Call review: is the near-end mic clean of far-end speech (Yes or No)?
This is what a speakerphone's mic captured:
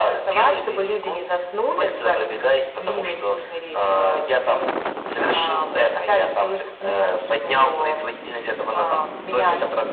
No